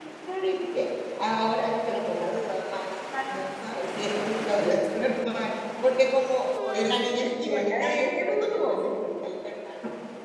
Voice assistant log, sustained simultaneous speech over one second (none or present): present